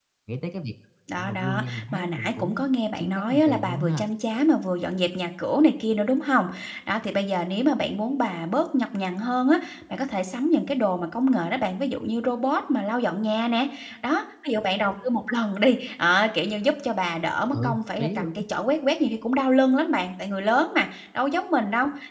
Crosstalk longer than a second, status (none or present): present